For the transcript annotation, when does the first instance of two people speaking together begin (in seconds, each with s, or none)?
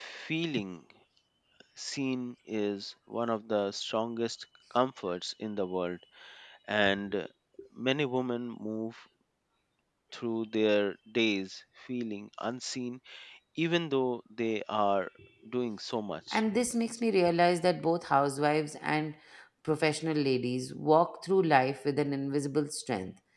none